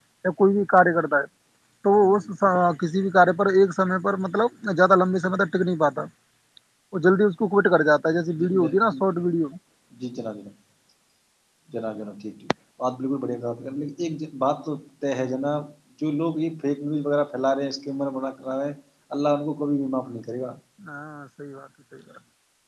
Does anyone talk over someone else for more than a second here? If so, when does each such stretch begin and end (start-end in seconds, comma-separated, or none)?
none